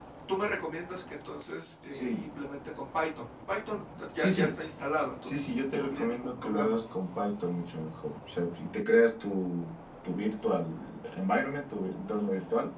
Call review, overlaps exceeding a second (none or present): present